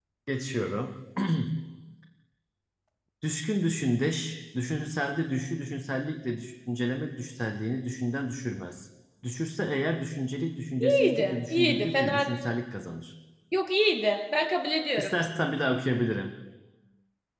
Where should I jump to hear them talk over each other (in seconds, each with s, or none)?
10.8 s